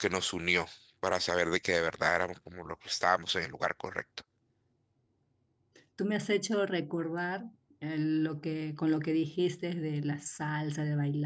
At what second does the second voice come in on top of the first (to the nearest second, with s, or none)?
none